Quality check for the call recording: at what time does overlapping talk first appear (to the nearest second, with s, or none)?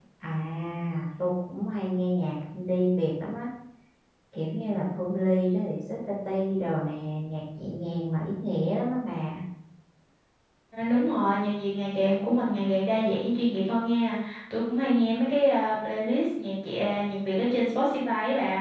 none